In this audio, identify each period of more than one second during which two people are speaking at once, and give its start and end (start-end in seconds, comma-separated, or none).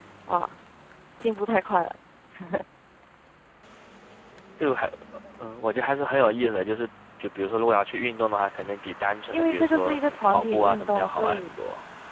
9.3-11.5